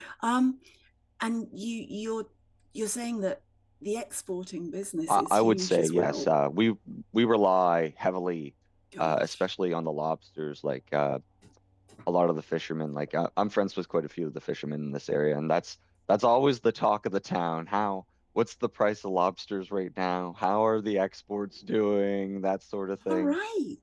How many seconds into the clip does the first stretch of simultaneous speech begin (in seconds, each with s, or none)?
5.1 s